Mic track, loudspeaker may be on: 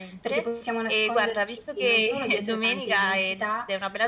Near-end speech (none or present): none